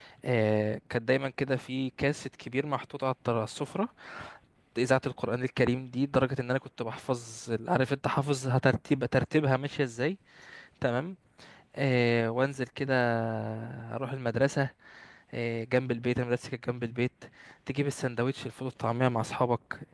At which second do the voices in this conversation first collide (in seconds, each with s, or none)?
none